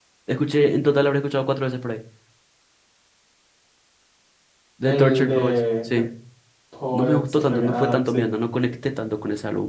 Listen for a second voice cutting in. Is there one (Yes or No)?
Yes